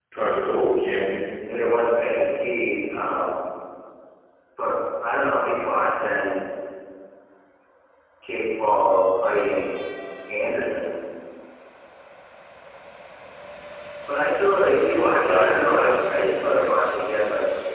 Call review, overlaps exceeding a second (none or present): present